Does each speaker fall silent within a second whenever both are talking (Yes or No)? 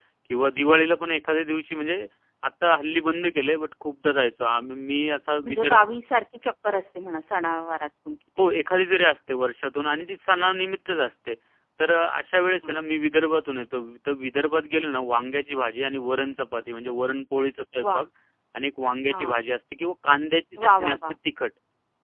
Yes